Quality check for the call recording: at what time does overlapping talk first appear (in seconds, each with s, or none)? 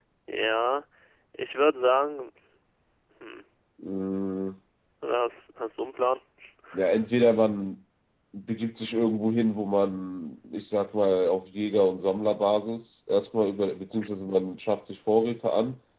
none